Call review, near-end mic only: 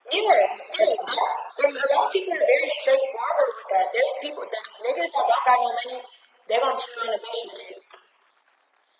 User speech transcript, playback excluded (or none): none